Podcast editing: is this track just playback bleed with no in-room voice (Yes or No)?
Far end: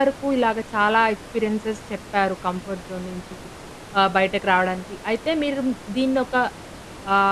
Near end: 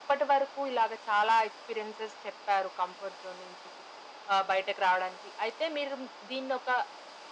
Yes